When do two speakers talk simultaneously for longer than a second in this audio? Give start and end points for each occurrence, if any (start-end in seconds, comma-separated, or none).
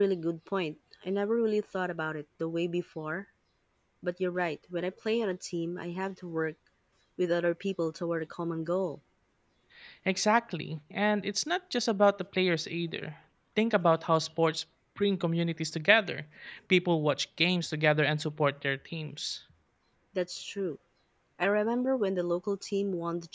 none